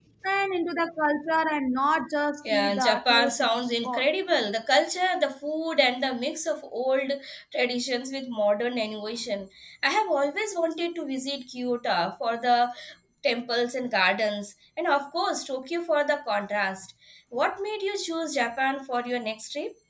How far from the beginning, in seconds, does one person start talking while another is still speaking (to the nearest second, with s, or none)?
2 s